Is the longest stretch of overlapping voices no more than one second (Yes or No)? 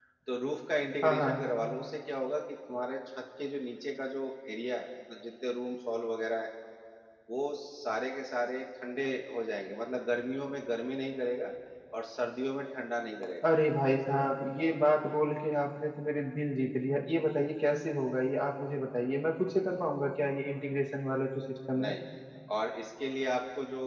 Yes